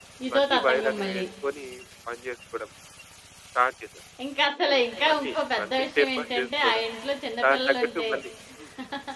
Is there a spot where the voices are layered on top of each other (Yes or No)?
Yes